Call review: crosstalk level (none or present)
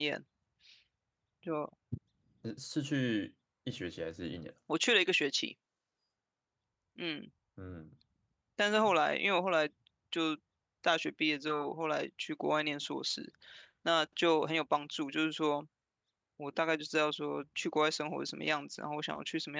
none